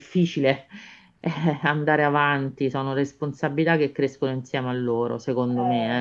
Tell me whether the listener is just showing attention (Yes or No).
No